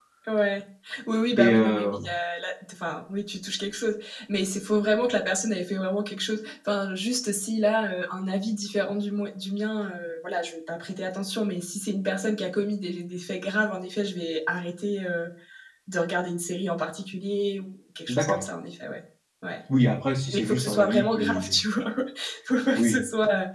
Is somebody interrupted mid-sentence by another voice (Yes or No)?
Yes